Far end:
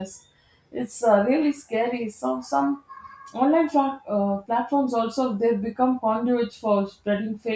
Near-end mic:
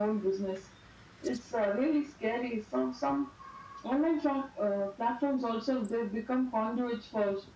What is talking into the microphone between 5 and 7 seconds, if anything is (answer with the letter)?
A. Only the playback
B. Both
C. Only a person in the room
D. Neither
A